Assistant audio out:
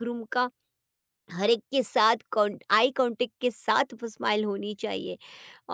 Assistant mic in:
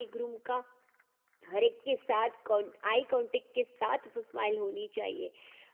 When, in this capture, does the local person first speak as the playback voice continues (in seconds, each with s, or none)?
none